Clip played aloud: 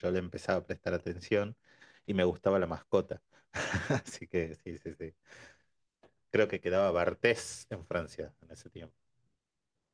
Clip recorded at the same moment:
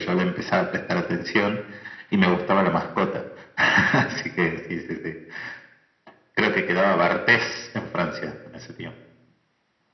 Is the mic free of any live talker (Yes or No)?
Yes